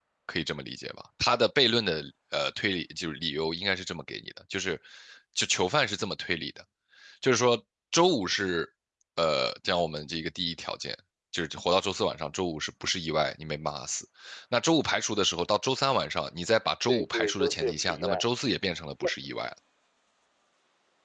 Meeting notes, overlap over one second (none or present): present